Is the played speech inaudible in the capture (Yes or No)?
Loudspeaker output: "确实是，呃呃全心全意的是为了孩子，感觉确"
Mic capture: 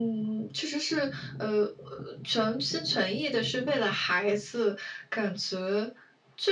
No